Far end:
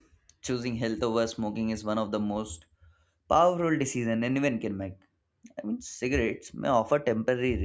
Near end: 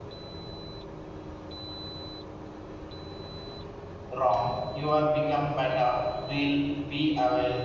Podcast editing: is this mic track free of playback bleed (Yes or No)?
Yes